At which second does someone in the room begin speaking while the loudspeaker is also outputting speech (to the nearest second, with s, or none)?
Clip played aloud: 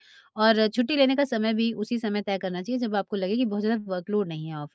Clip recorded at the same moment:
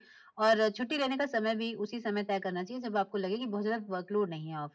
none